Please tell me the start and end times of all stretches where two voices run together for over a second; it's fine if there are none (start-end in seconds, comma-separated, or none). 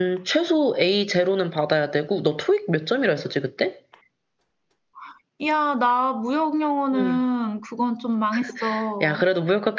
none